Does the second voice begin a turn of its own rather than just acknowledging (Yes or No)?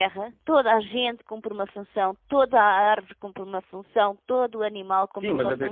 Yes